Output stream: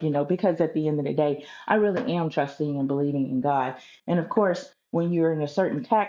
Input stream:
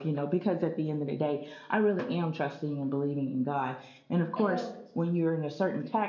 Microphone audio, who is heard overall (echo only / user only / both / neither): both